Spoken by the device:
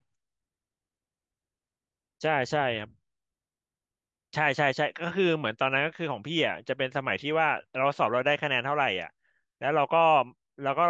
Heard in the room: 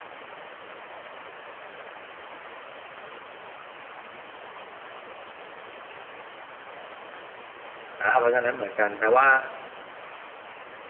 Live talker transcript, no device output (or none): อ่าเพราะฉะนั้นเหมือนกันแปลว่า